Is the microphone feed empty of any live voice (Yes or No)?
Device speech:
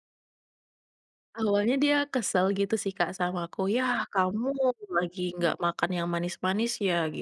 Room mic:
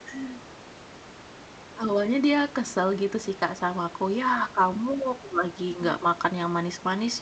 Yes